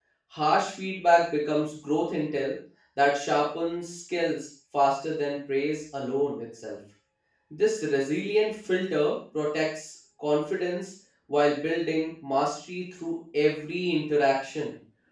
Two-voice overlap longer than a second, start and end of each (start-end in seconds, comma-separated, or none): none